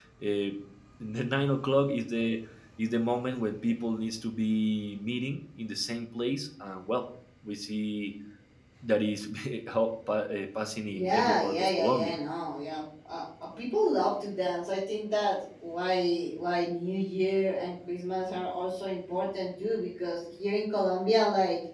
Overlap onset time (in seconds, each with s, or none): 10.9 s